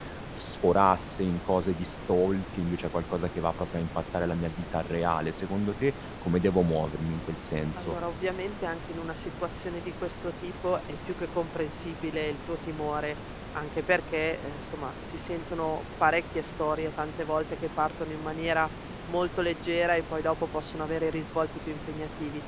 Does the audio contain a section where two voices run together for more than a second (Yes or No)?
No